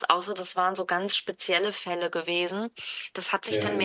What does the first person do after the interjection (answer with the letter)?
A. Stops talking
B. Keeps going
B